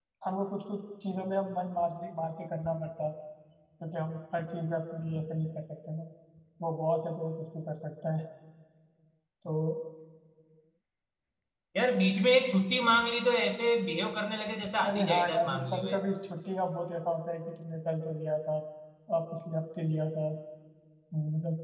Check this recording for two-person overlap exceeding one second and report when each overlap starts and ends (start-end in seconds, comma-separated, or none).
14.9-16.1